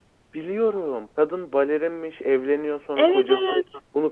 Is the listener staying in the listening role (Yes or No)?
Yes